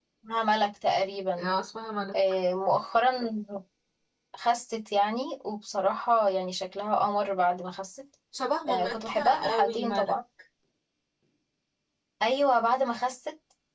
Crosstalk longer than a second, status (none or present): present